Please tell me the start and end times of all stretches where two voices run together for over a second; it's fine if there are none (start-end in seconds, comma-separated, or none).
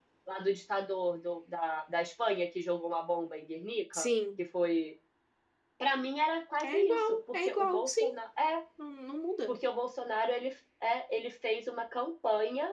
6.6-8.0